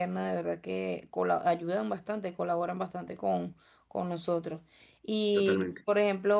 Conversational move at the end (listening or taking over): listening